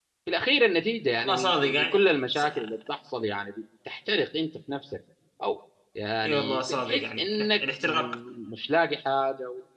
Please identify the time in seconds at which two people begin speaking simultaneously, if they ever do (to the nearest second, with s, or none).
1 s